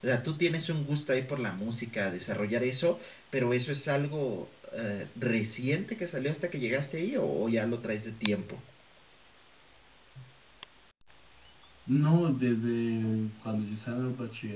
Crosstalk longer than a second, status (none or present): none